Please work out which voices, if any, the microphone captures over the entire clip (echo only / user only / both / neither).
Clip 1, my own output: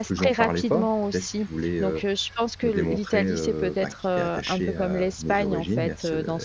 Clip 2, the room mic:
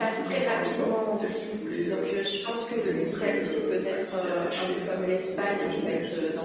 both